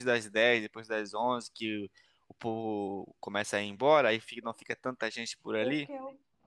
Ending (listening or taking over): taking over